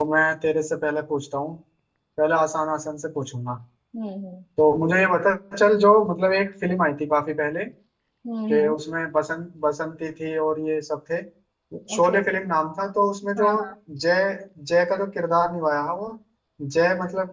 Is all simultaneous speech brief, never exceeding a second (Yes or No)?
Yes